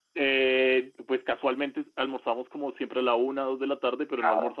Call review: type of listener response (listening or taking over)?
listening